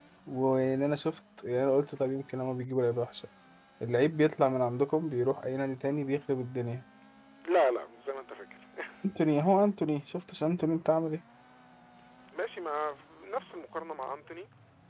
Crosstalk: none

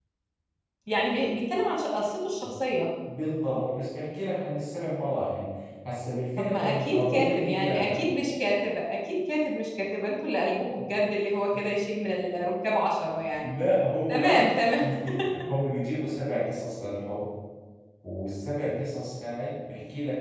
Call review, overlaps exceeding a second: present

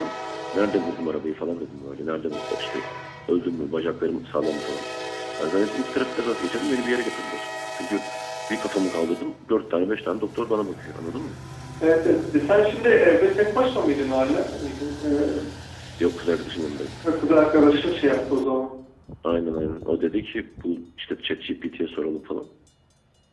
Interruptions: none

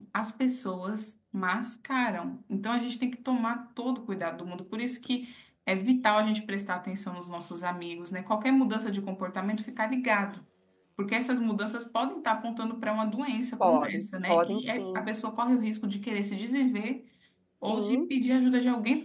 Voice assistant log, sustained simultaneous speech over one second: present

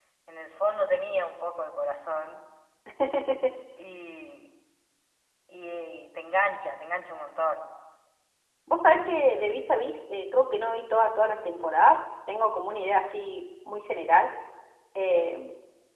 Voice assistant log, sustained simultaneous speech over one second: none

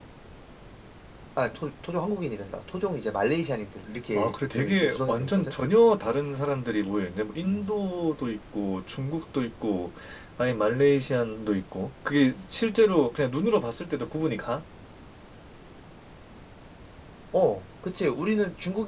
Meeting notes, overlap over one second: present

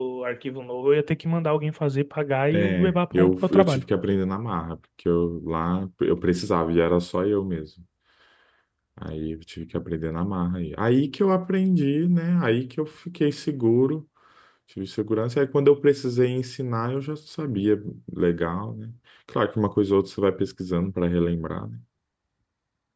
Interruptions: present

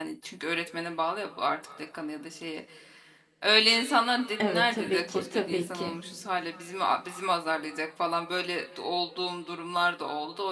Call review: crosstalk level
present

